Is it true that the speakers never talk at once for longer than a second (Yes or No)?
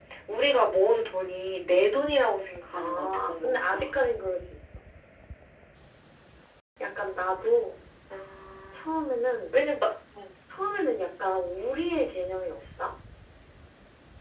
No